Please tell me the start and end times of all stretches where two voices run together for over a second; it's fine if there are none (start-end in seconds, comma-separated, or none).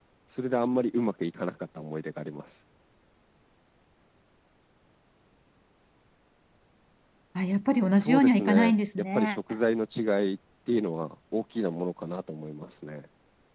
8.0-9.4